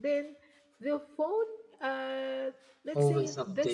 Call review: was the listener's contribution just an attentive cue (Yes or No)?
Yes